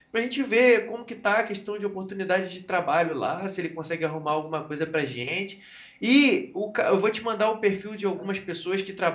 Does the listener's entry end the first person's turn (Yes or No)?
No